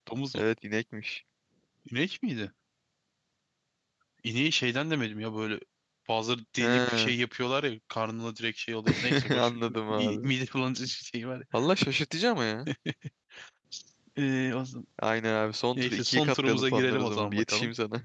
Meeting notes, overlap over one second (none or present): present